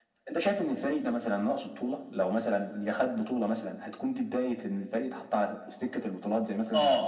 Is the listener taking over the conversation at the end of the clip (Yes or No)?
Yes